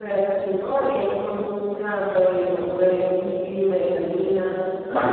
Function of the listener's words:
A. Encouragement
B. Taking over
B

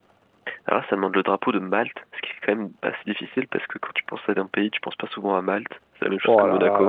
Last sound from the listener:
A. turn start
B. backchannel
A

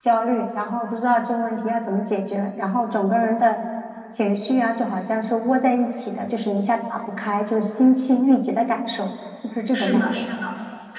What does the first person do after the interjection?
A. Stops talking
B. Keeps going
A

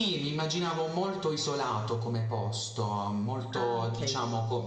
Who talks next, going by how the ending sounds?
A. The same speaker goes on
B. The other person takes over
A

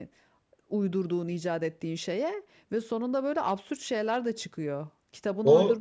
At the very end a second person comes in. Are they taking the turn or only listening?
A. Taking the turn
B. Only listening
A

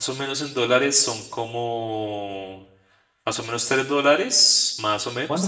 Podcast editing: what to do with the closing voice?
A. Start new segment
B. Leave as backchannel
B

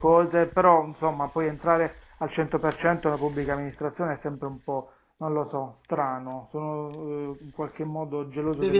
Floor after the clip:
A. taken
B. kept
A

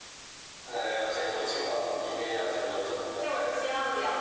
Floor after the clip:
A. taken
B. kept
A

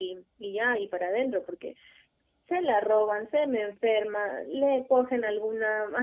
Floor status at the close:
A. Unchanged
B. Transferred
A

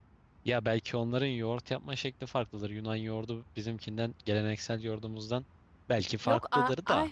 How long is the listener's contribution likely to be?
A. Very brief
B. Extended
B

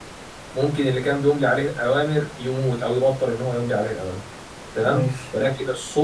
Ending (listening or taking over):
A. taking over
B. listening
B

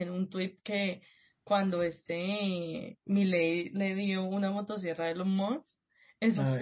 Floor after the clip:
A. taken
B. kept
B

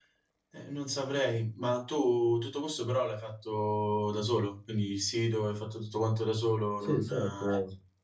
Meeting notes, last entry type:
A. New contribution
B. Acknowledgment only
A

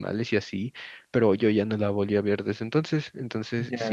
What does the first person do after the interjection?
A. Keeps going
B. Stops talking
A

